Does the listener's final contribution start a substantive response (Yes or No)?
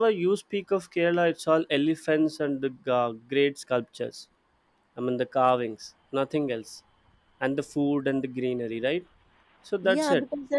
Yes